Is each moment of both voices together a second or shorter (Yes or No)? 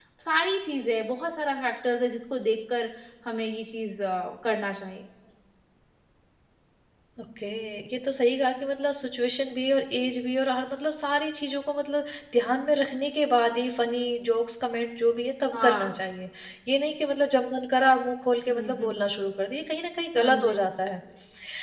Yes